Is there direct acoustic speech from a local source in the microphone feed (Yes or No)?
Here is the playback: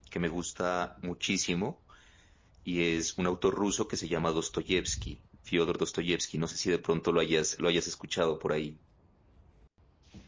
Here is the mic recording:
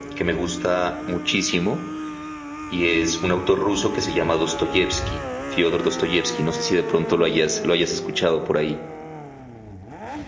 No